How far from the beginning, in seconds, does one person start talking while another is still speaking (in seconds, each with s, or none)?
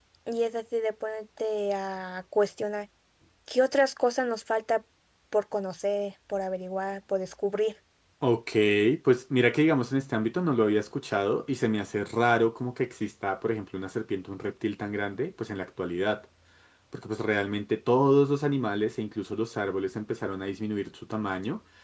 none